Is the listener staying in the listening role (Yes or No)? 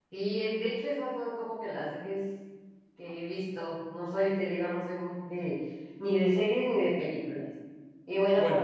Yes